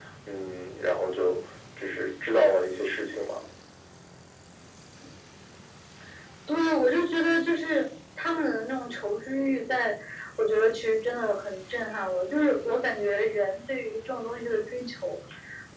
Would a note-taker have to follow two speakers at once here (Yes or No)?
No